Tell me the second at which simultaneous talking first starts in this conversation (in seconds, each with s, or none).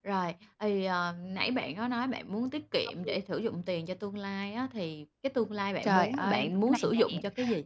5.8 s